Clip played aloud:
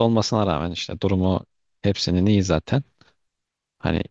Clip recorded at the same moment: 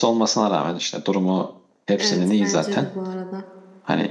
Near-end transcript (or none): Evet bence de bu arada.